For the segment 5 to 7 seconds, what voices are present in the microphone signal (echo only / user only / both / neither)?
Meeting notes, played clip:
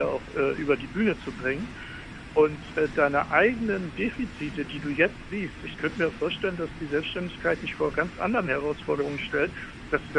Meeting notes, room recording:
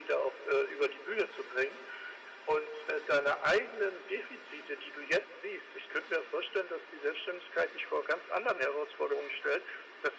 echo only